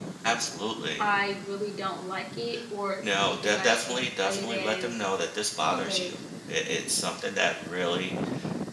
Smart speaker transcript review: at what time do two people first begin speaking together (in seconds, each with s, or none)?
3.0 s